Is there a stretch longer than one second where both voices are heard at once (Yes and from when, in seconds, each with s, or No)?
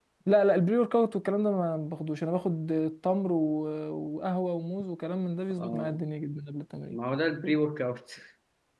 No